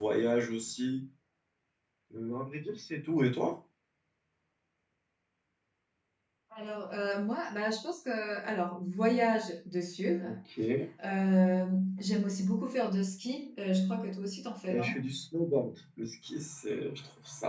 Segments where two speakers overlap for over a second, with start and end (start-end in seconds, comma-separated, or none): none